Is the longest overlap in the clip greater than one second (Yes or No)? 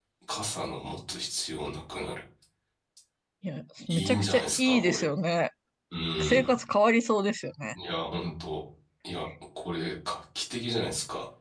Yes